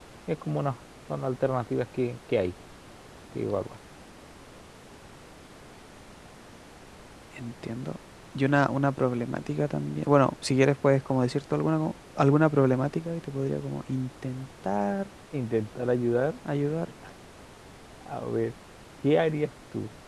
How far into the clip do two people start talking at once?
none

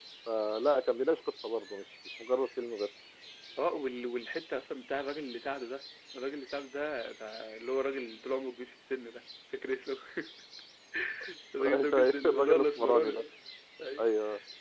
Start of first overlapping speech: 11.6 s

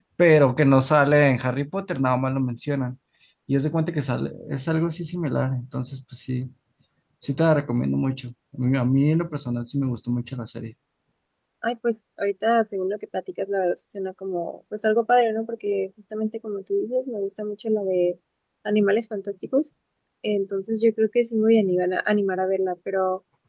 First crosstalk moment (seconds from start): none

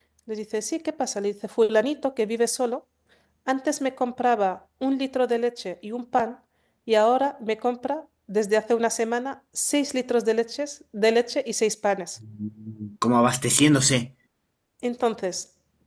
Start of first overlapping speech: none

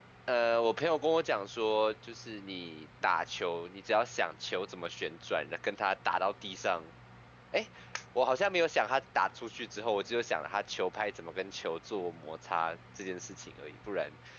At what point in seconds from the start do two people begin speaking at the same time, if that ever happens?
none

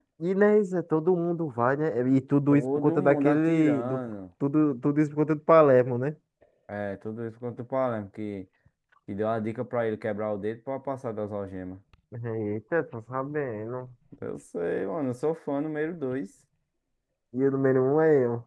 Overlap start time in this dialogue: 2.5 s

